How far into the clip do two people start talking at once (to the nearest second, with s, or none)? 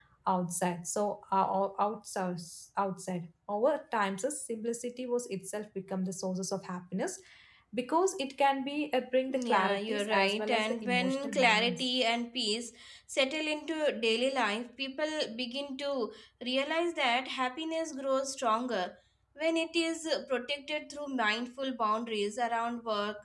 9 s